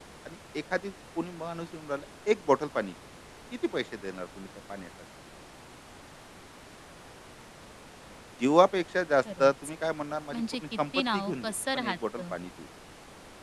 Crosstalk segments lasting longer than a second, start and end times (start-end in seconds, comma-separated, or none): 10.3-12.2